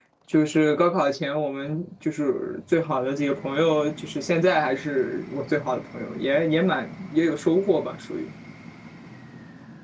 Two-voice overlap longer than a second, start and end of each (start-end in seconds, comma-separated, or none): none